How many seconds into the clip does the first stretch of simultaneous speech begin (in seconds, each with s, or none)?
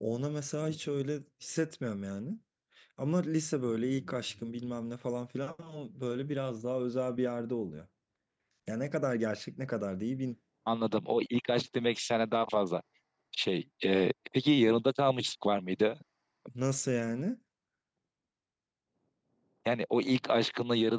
none